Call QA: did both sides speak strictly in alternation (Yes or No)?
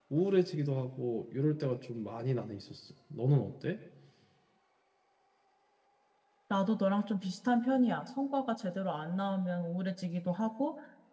Yes